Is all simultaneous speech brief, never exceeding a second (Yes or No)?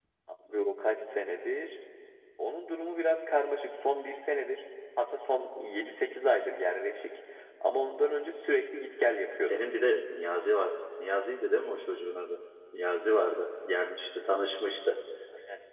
Yes